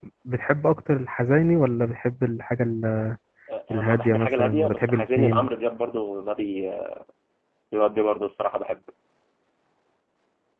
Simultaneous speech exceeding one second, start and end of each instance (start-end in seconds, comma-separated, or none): 3.7-5.5